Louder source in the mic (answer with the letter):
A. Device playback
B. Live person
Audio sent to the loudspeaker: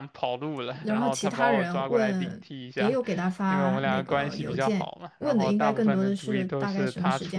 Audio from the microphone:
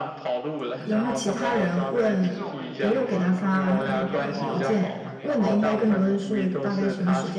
A